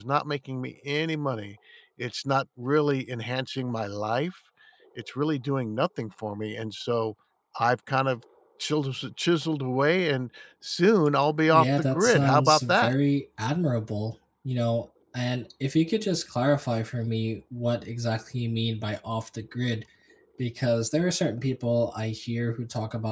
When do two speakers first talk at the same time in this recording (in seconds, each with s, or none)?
11.5 s